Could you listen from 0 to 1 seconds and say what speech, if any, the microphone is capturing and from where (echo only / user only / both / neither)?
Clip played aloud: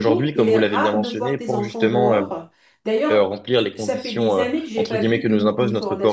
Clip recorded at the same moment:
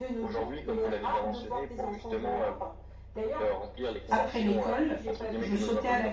echo only